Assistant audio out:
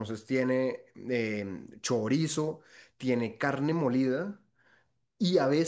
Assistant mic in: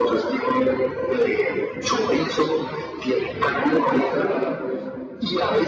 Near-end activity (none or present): present